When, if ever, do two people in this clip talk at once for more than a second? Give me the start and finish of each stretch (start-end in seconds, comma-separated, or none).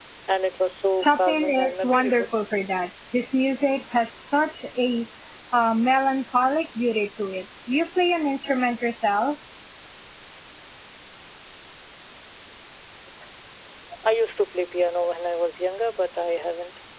1.0-2.2